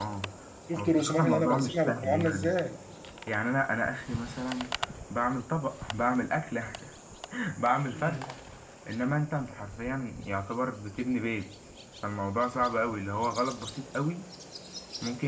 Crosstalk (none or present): present